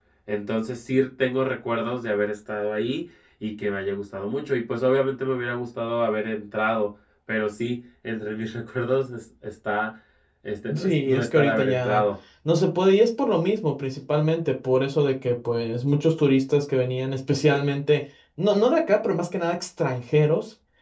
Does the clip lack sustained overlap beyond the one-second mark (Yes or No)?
No